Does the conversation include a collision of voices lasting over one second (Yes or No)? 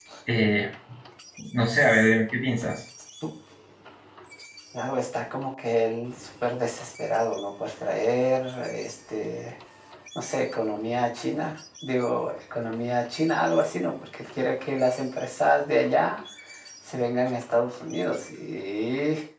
No